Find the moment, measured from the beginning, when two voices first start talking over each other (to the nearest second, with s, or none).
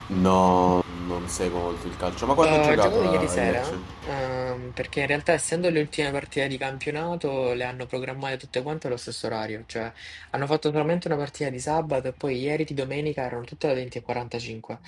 2 s